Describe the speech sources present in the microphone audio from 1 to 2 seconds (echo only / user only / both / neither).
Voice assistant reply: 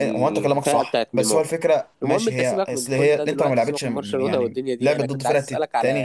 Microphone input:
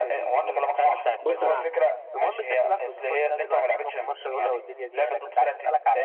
both